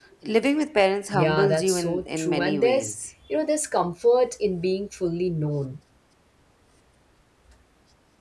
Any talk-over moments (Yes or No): Yes